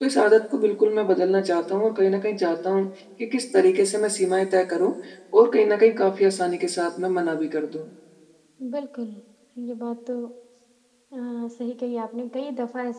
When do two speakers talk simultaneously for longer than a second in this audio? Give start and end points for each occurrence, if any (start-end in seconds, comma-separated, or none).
none